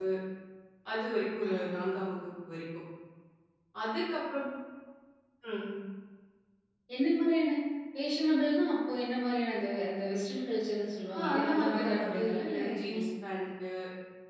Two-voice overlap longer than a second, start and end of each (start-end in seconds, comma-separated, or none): 11.2-13.0